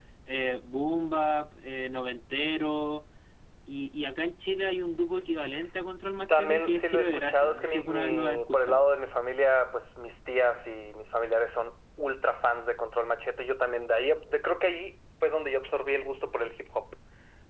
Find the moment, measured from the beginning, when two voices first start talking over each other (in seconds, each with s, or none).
6.3 s